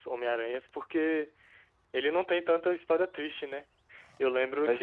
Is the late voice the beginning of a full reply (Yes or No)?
No